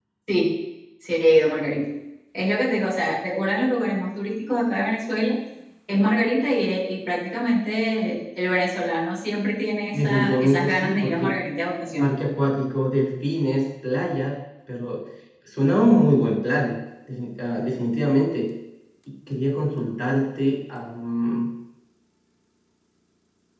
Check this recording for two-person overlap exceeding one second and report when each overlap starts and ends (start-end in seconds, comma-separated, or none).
9.9-11.3